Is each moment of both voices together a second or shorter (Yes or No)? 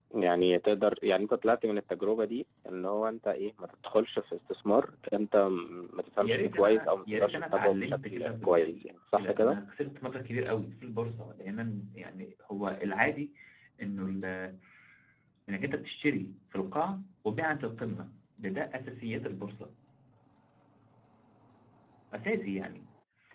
No